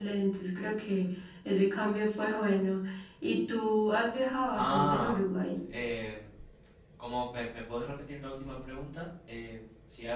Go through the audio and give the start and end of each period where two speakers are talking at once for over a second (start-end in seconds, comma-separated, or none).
none